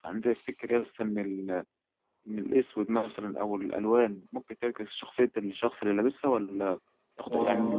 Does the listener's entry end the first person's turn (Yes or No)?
No